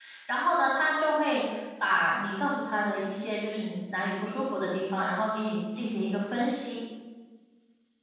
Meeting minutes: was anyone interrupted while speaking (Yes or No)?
No